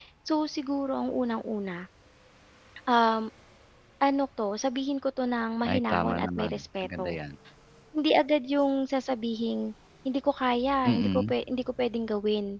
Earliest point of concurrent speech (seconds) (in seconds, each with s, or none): 5.6 s